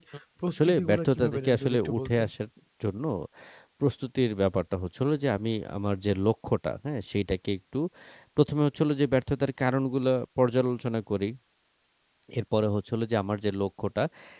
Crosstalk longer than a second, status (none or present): present